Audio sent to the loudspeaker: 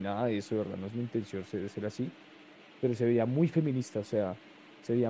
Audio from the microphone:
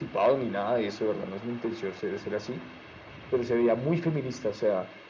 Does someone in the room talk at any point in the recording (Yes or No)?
No